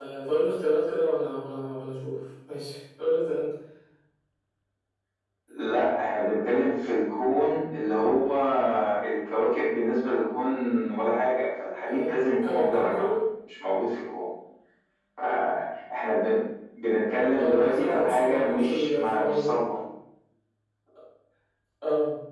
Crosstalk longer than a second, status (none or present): present